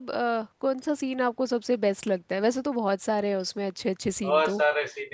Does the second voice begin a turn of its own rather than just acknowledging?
Yes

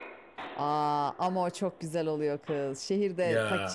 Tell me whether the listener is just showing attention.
Yes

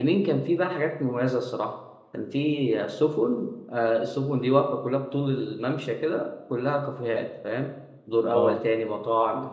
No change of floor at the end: Yes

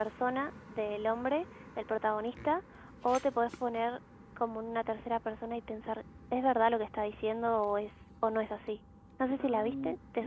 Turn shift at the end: Yes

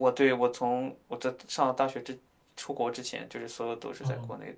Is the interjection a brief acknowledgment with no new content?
No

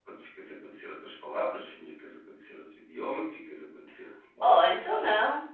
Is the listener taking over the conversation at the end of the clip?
Yes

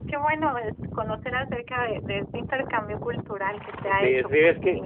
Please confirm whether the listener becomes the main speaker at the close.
Yes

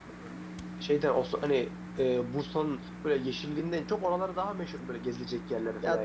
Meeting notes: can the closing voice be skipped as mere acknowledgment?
No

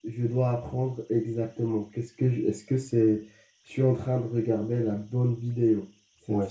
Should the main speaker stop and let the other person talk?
Yes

